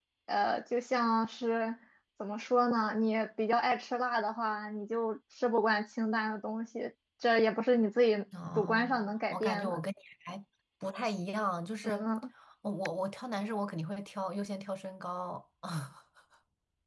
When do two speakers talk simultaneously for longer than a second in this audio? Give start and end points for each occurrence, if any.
8.6-9.8

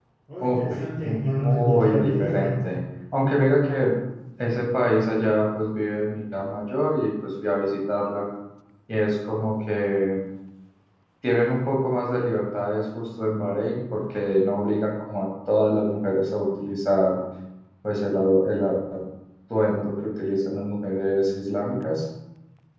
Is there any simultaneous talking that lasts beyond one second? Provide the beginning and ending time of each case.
1.4-2.7

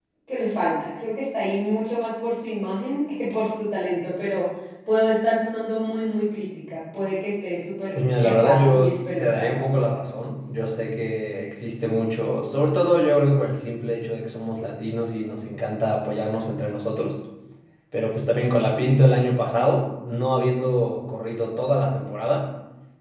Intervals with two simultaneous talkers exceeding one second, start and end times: 8.0-9.8

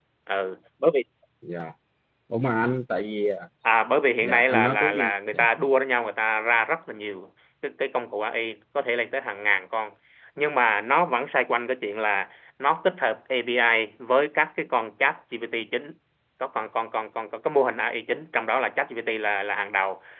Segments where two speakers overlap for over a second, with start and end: 4.2-5.5

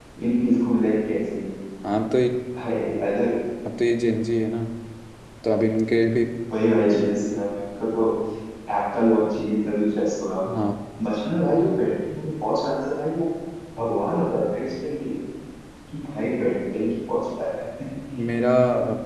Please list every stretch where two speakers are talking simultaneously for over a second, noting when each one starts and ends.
none

